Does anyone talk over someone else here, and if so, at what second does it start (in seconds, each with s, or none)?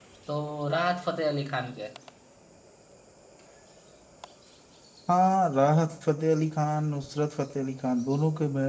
none